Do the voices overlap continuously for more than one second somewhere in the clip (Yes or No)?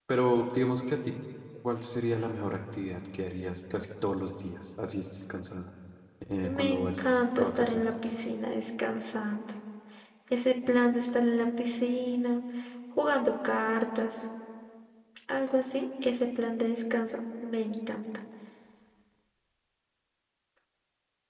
Yes